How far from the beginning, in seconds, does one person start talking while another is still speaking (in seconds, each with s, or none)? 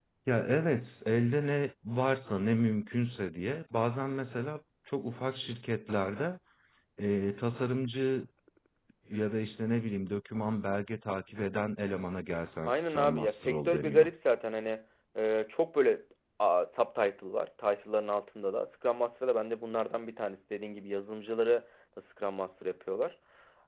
12.7 s